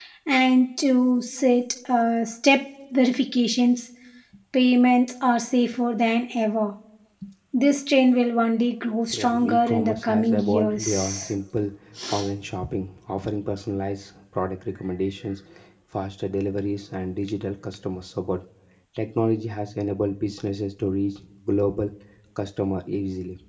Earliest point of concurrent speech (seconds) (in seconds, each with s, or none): 9.1 s